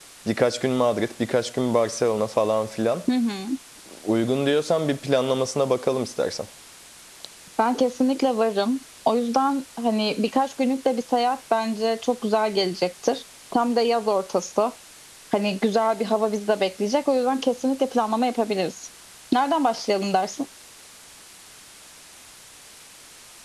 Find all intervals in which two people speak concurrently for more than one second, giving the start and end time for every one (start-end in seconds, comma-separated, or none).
none